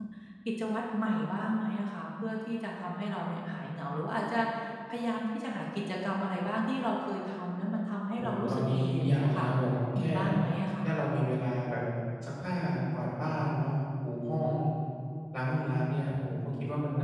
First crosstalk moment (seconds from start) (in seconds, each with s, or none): 8.2 s